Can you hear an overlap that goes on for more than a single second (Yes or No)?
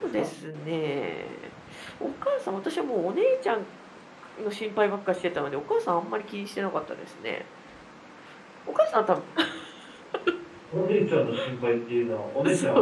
No